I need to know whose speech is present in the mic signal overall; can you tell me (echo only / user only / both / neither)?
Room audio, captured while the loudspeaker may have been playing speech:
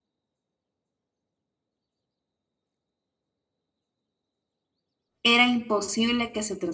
user only